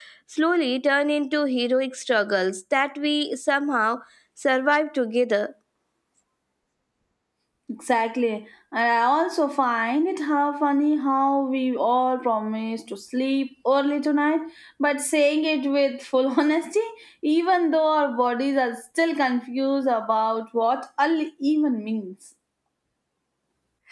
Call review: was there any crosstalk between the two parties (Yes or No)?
No